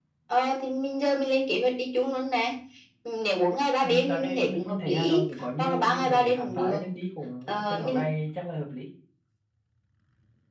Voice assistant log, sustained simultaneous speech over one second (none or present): present